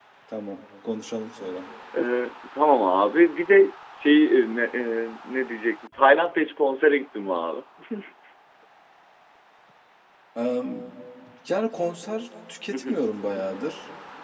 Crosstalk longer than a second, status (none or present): none